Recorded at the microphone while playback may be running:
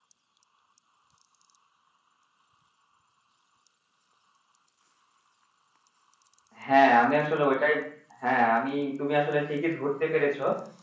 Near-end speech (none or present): present